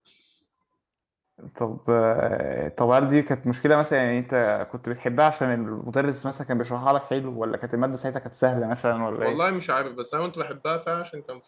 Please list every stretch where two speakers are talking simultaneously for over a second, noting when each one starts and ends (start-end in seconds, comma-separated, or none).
none